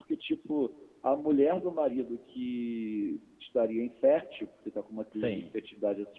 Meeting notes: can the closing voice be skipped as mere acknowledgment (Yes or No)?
Yes